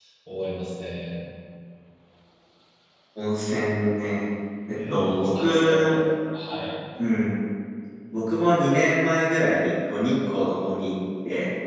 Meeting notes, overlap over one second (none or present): present